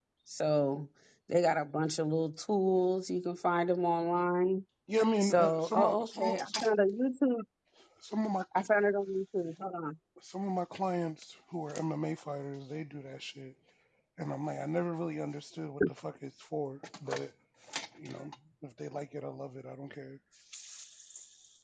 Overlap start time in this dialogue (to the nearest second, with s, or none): 5 s